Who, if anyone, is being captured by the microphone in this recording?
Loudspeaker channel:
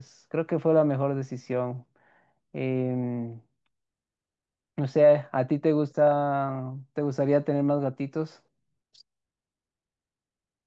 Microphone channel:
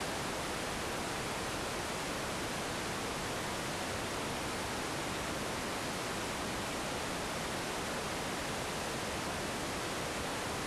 neither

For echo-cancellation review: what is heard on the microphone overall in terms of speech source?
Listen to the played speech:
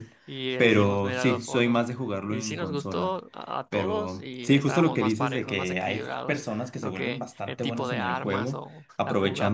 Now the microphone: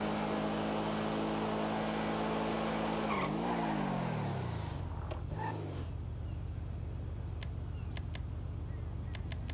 neither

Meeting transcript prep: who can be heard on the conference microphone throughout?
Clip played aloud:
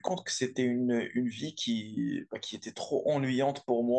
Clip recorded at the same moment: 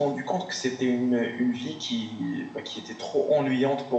echo only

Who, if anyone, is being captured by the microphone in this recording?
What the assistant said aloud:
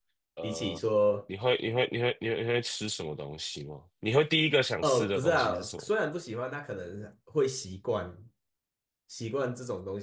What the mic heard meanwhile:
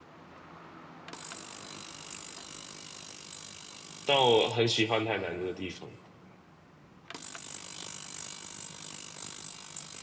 user only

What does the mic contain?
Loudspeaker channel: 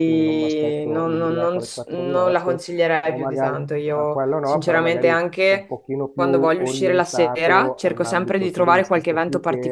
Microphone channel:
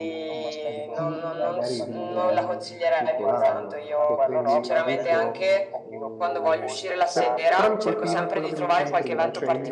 both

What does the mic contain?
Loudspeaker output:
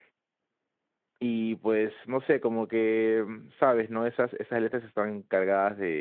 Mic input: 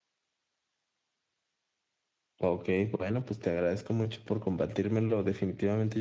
user only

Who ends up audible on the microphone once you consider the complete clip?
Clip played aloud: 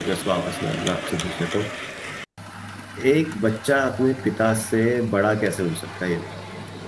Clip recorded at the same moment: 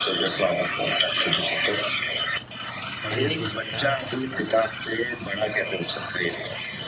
both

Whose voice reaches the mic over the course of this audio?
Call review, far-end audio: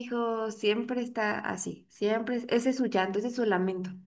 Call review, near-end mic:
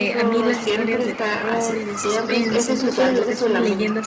both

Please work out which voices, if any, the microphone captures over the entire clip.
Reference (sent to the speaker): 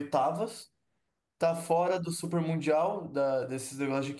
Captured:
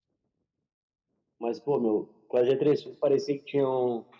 user only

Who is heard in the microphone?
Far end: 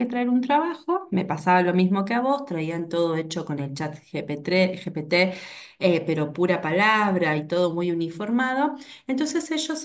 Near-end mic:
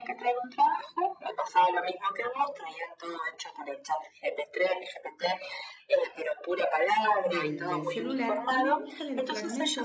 both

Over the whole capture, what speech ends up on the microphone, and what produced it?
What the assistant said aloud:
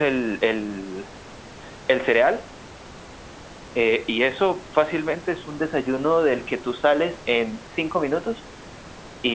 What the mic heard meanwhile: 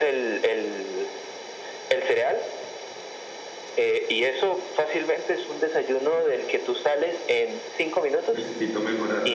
both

